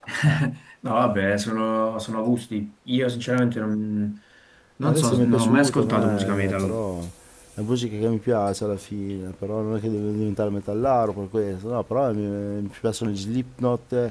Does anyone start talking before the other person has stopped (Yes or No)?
Yes